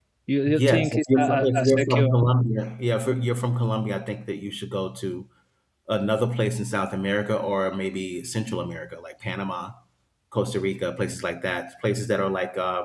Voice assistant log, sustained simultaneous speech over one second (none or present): present